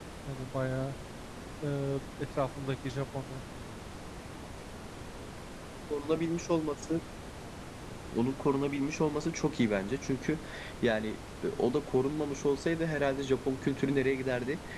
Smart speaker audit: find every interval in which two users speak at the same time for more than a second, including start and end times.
none

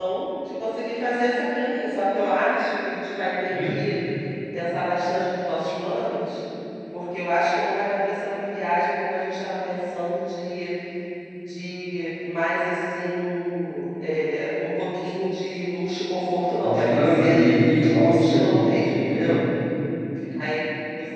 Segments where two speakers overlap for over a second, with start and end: 16.6-19.4

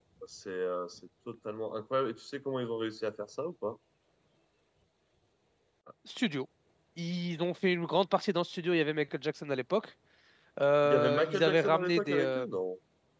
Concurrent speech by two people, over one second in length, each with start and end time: 10.8-12.4

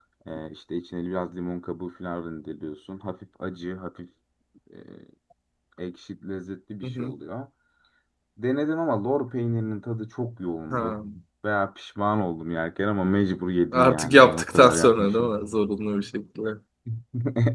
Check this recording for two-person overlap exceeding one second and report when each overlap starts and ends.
13.7-15.3

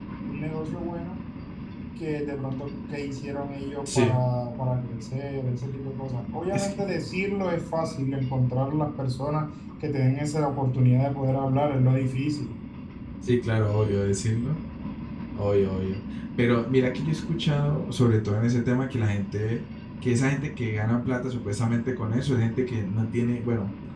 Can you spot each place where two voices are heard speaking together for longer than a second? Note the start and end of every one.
none

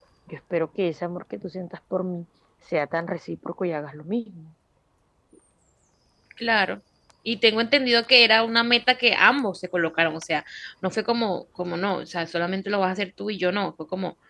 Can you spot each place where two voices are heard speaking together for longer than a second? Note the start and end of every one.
none

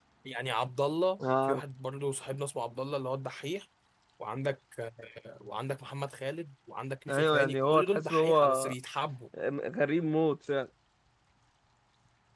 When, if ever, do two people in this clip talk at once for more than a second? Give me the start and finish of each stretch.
7.1-8.7

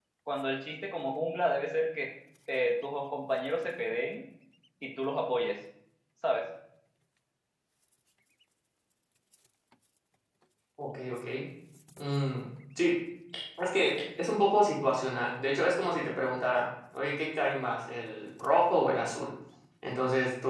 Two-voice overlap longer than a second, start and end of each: none

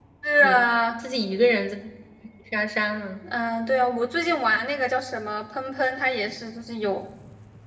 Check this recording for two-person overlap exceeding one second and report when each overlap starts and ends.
none

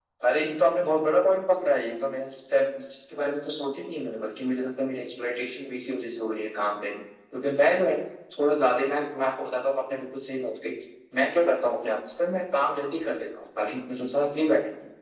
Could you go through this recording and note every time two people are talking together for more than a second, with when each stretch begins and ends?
none

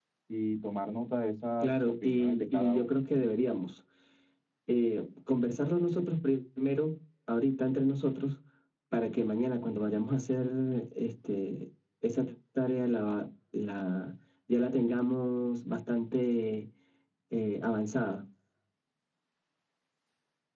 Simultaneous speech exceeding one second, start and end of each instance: 1.6-3.4

